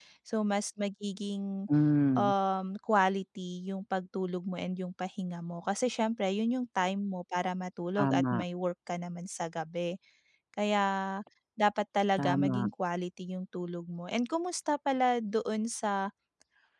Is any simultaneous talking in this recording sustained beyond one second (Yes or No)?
No